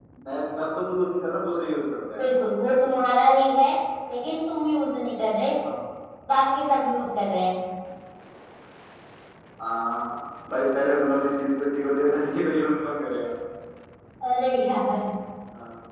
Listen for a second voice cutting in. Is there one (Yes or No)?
No